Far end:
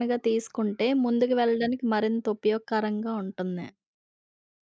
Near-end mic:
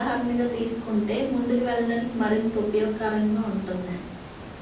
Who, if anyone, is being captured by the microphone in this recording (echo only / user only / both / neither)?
echo only